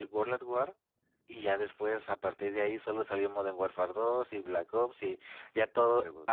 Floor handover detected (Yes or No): No